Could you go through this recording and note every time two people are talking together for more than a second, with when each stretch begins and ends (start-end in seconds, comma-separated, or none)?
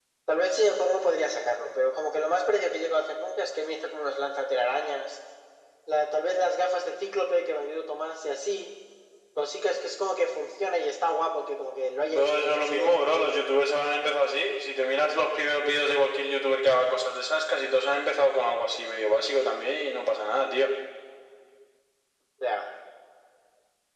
12.1-13.3